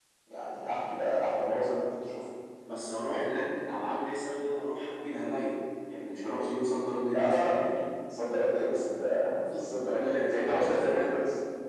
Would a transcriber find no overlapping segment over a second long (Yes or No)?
No